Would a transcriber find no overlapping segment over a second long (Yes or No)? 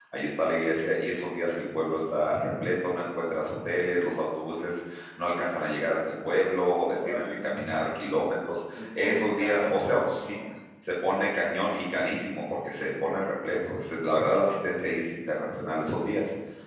No